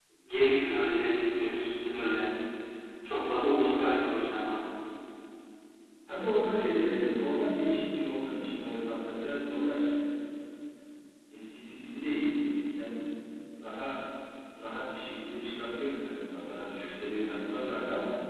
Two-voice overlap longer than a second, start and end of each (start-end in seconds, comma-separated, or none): none